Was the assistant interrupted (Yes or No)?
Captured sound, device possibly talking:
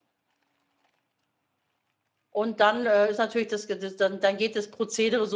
Yes